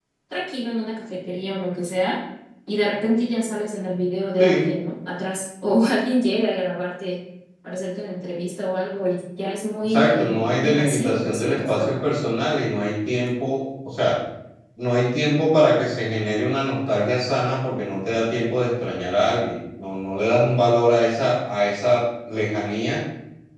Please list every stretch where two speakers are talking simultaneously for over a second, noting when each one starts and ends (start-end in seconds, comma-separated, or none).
9.8-12.0